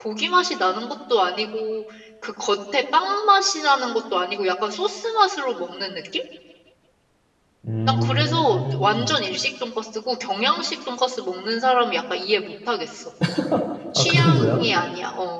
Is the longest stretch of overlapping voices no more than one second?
No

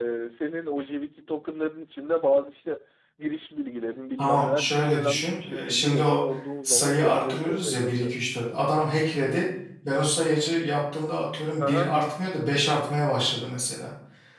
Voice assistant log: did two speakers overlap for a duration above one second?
Yes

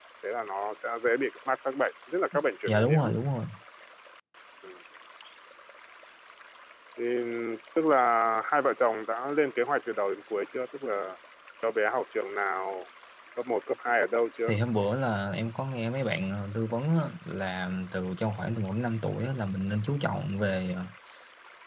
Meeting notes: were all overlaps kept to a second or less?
Yes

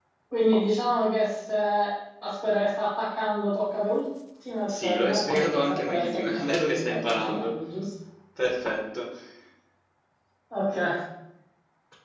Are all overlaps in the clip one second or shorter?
No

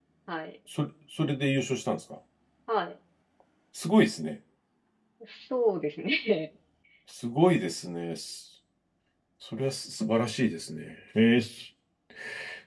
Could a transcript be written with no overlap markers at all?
Yes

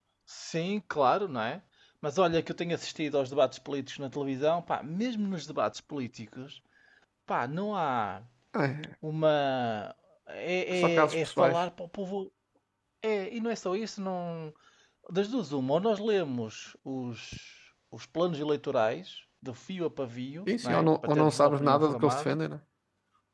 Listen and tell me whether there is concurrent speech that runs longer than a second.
Yes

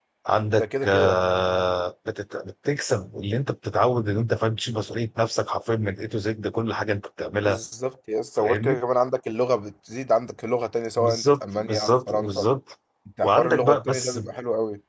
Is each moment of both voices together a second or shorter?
No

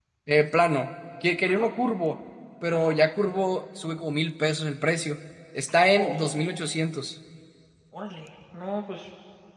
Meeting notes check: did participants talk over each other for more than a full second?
No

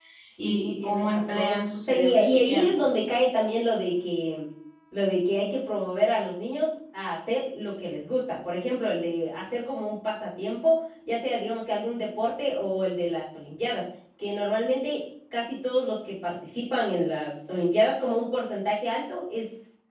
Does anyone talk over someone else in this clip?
Yes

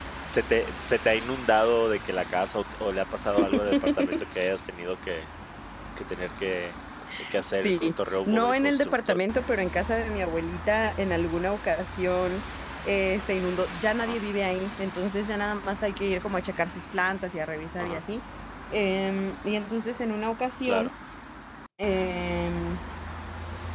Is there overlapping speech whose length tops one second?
Yes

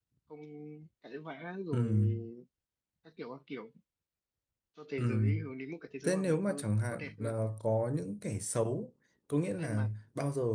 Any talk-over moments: Yes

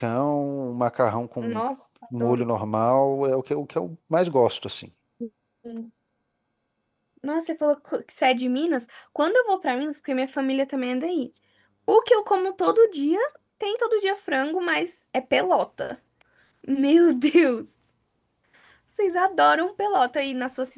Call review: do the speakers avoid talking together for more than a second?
Yes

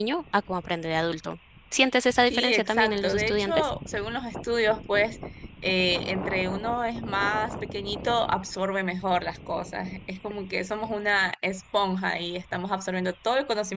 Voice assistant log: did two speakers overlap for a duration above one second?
Yes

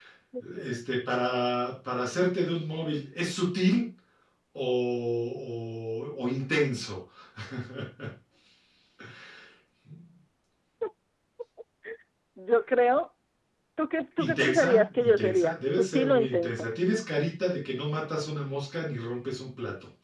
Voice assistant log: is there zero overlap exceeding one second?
No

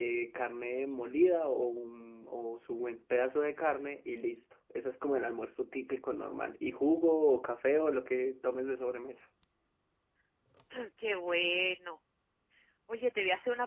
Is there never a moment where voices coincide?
Yes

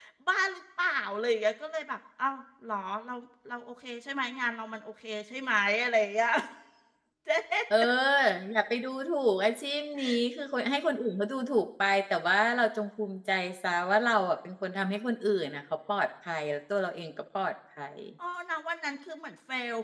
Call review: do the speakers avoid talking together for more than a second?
Yes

